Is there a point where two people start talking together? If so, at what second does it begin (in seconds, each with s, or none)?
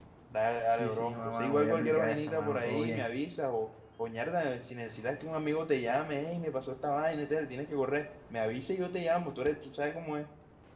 0.7 s